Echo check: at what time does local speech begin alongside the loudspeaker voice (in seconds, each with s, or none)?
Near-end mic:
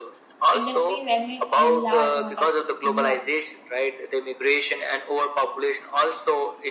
0.5 s